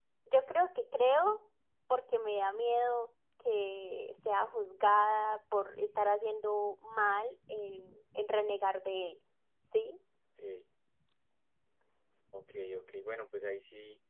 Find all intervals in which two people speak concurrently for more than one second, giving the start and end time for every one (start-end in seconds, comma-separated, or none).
none